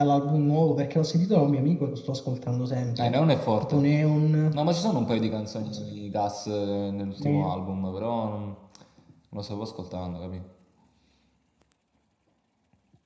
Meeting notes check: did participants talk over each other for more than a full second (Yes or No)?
No